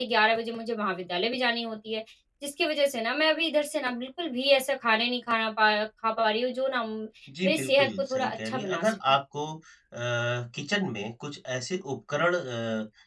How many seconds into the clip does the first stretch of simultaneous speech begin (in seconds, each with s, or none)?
7.4 s